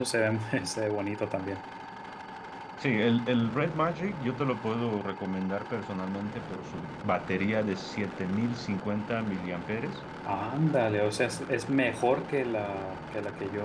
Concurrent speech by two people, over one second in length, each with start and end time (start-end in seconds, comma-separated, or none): none